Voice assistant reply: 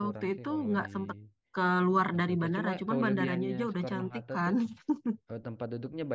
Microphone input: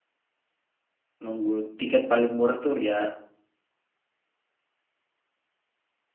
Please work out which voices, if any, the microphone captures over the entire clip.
user only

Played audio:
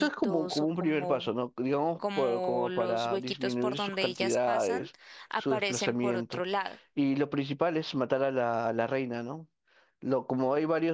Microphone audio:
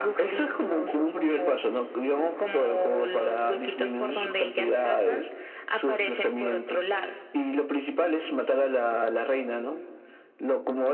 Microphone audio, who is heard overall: echo only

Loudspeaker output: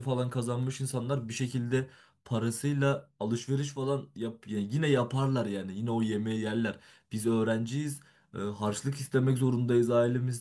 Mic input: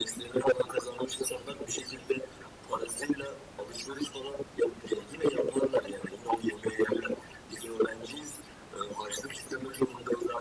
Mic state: echo only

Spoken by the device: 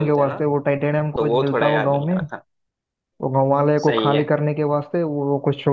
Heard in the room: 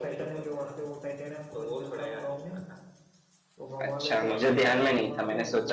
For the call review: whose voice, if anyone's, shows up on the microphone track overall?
both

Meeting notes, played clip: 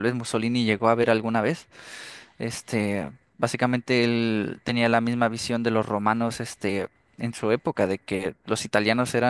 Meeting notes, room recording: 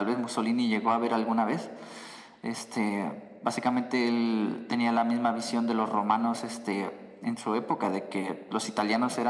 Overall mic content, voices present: echo only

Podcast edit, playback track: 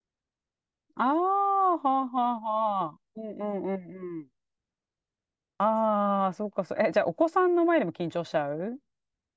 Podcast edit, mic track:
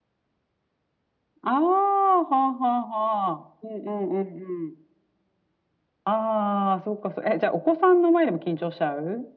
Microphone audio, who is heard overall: echo only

